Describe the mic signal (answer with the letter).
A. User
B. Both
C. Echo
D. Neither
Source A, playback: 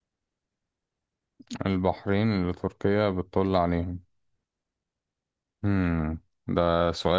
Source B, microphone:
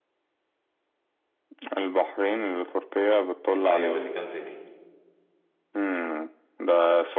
B